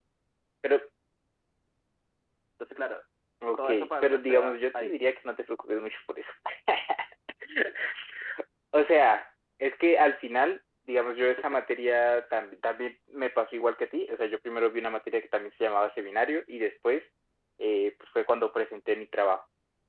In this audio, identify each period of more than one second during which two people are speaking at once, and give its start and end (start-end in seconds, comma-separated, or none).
3.6-5.0